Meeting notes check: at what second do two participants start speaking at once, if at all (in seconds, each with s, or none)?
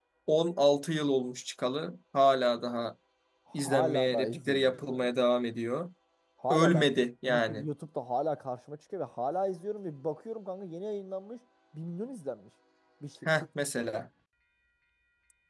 3.5 s